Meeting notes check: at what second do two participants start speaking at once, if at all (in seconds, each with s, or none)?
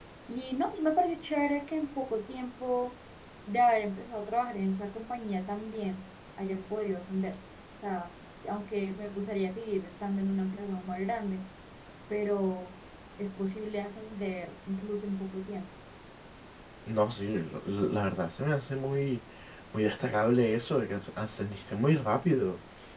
none